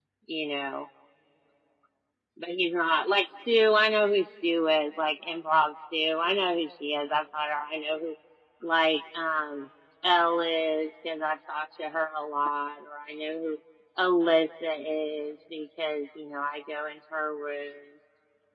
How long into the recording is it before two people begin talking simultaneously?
none

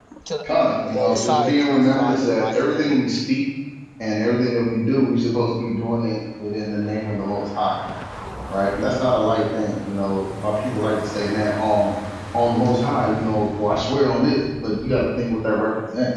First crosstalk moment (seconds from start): 0.8 s

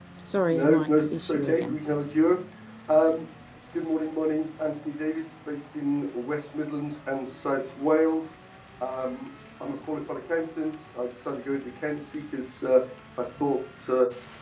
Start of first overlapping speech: 0.5 s

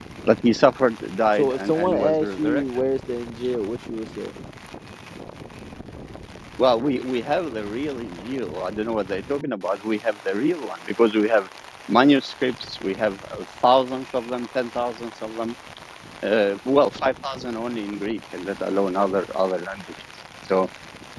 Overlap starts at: 1.4 s

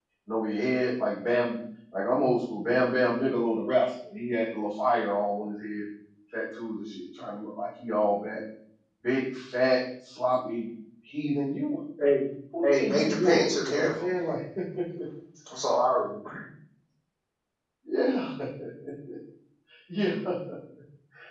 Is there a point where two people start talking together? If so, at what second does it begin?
12.6 s

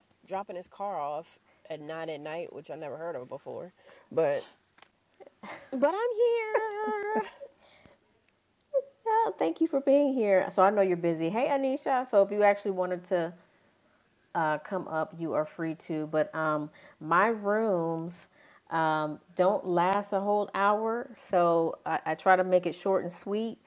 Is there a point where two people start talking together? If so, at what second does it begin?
none

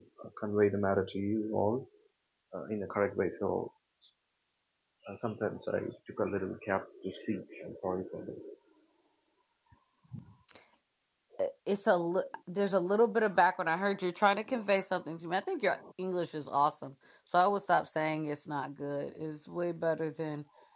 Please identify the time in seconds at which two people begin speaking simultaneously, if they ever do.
none

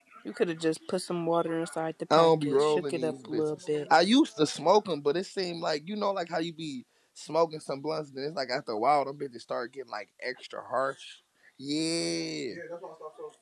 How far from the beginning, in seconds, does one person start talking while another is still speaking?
2.1 s

